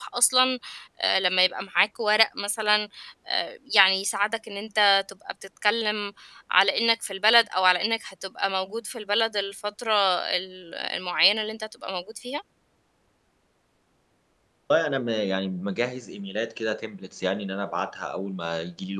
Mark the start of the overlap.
none

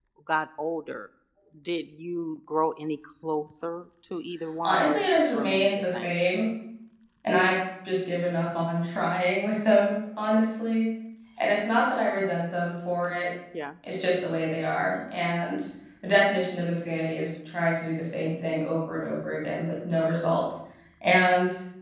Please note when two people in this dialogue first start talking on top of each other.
4.6 s

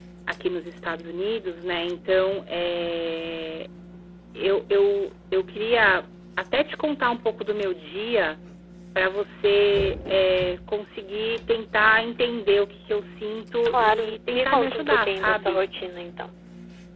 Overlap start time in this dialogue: 13.7 s

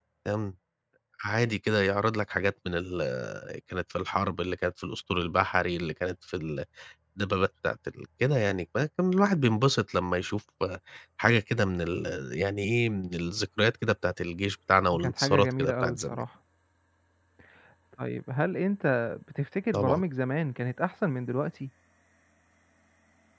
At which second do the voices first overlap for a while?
14.9 s

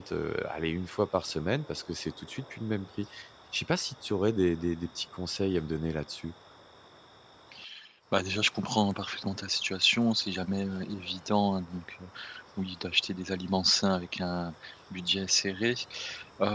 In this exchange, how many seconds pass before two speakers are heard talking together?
none

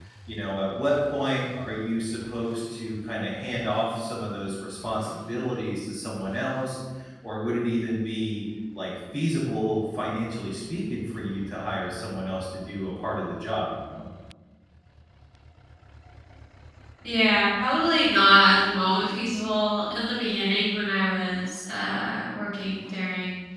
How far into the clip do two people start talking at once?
none

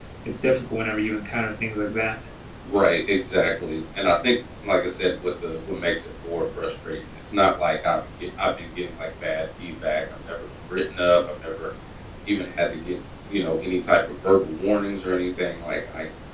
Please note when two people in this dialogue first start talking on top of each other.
none

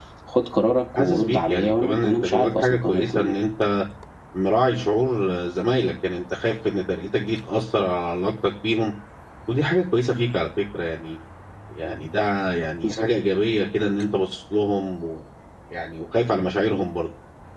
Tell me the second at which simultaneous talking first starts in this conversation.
1.0 s

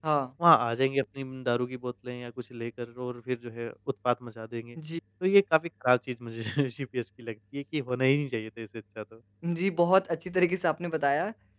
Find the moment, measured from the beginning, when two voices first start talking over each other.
none

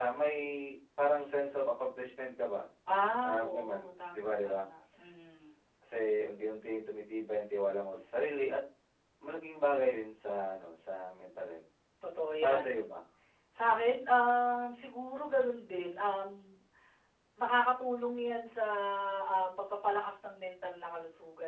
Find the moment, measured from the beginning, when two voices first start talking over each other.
3.2 s

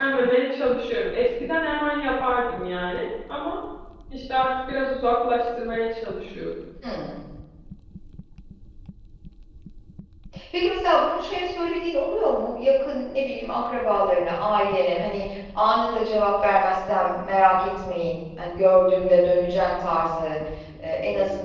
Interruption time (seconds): none

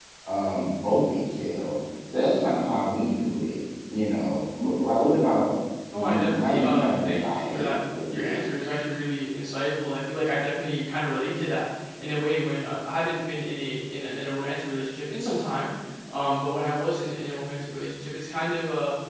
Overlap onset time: 5.9 s

